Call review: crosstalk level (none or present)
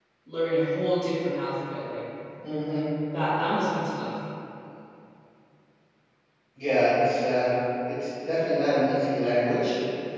none